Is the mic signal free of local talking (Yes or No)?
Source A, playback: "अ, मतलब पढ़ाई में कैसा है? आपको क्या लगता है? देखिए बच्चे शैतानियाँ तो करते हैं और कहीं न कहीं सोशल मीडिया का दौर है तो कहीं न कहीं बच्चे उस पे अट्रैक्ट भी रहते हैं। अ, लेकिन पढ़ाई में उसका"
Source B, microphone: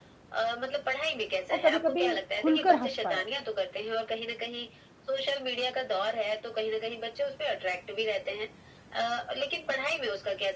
No